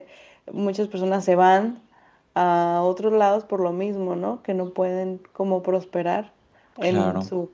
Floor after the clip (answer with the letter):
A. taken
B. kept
A